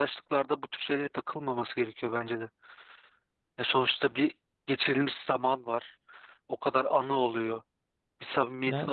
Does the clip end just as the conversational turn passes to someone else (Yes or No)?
No